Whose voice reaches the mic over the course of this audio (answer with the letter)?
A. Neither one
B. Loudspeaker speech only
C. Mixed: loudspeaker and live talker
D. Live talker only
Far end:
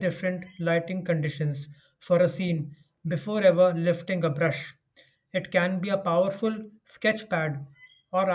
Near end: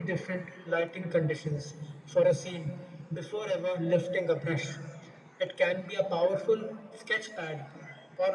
B